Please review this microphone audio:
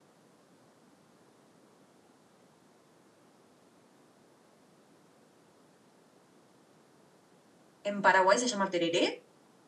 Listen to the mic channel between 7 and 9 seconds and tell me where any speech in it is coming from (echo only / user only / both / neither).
user only